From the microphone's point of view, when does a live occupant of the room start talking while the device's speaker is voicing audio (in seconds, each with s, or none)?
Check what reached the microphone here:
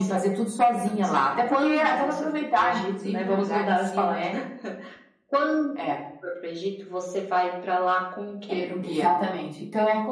8.8 s